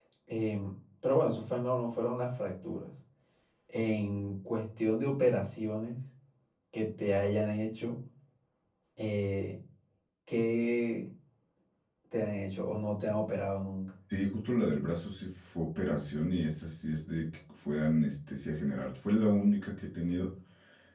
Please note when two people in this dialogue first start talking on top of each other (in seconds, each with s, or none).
none